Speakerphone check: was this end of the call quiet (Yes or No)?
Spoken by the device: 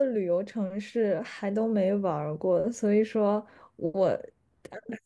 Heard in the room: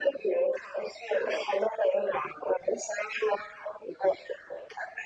Yes